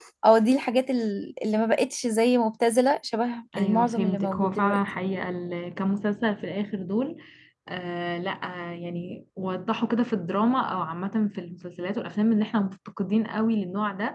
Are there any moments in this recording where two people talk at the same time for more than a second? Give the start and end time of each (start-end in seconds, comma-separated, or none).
3.6-4.8